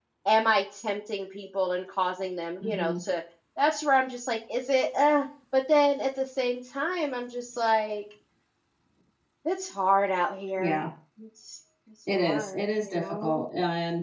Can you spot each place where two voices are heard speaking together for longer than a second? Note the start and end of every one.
12.2-13.4

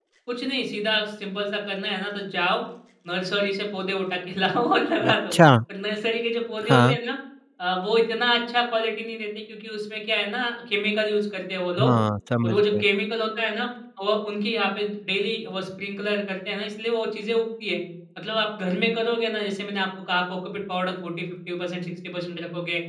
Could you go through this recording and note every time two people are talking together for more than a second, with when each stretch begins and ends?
none

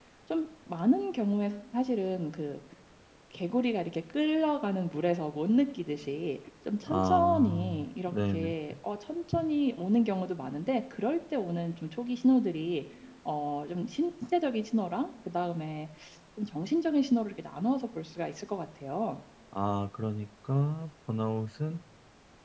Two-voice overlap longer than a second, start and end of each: 6.9-8.5

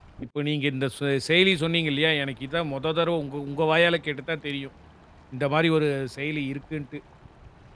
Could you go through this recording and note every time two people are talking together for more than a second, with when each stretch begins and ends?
none

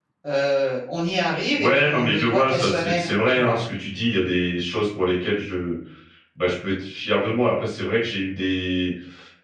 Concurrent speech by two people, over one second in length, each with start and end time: 1.6-3.5

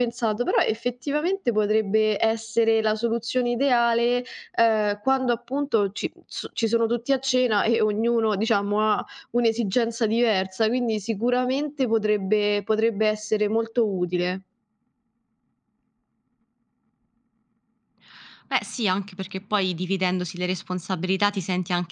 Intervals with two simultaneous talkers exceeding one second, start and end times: none

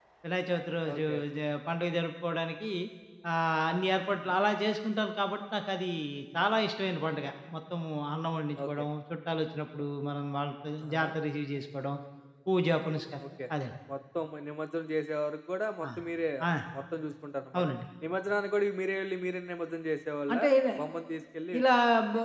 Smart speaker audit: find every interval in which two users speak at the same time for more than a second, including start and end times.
none

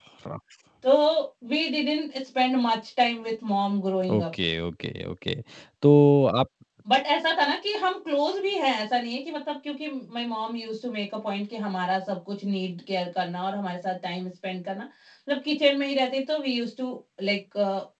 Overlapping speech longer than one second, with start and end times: none

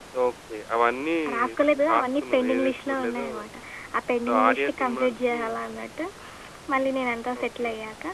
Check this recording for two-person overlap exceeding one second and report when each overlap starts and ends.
1.9-3.3, 4.3-5.5

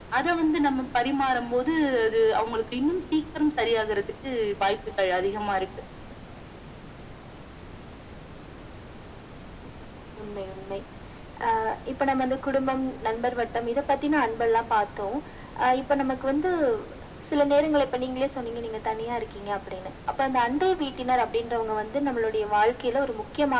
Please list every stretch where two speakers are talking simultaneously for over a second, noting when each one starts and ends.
none

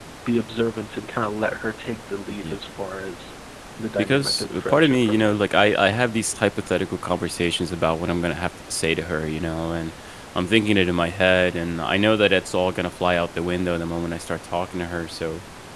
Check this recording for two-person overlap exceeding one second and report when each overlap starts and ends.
4.0-5.3

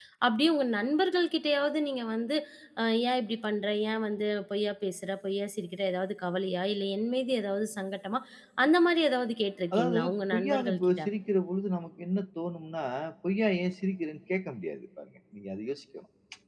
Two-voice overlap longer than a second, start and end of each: 9.7-11.0

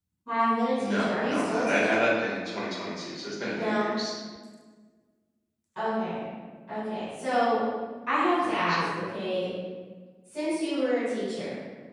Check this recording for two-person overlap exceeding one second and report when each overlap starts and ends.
0.8-2.0

